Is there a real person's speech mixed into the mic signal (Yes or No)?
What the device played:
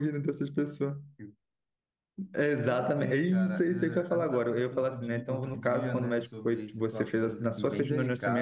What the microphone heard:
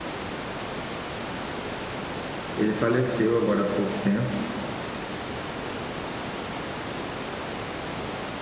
Yes